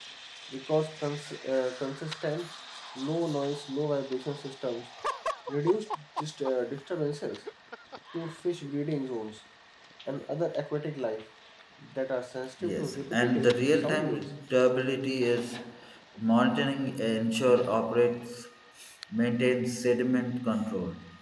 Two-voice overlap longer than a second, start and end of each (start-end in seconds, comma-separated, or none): 12.6-14.3